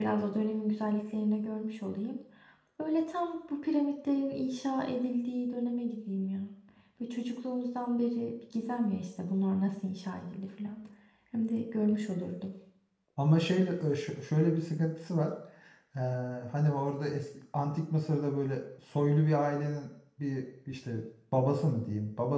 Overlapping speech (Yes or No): No